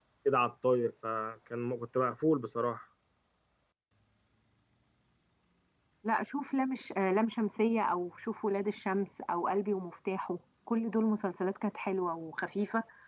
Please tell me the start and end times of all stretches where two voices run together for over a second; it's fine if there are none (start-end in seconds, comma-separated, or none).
none